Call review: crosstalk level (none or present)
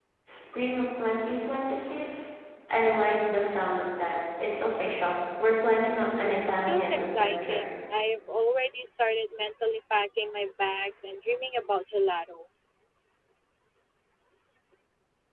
present